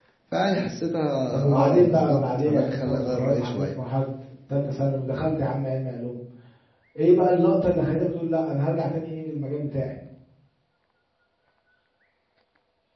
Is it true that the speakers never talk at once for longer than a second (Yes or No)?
No